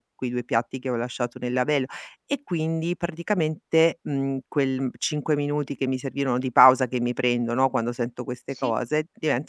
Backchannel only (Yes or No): Yes